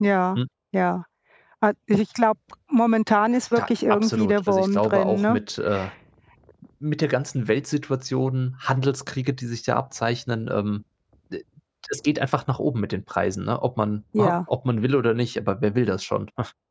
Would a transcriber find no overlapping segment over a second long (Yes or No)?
No